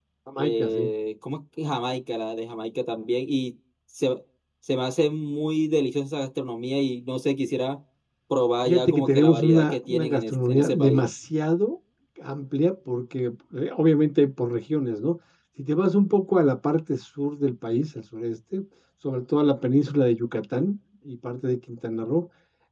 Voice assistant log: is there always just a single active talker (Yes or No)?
No